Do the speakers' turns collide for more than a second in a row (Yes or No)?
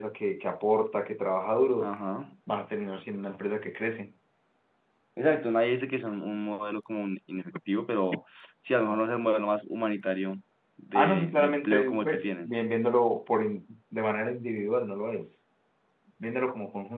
Yes